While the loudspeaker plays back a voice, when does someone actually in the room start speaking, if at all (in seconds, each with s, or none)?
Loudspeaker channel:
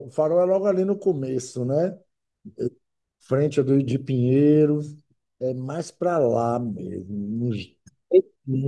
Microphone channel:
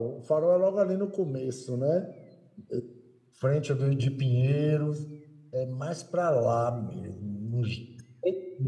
none